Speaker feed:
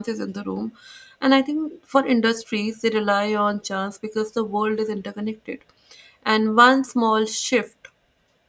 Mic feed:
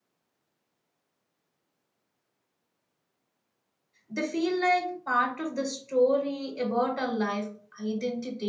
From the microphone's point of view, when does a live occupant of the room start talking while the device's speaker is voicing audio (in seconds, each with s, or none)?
4.1 s